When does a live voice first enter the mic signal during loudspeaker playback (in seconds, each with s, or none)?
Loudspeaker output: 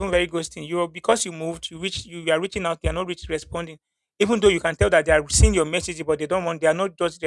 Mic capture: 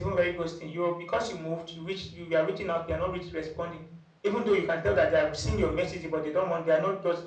none